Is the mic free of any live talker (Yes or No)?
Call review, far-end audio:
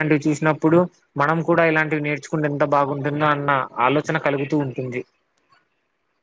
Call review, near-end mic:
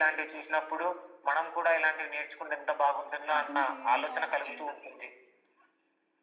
No